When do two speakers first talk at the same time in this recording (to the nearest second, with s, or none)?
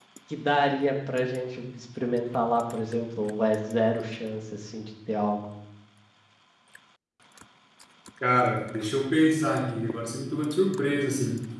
none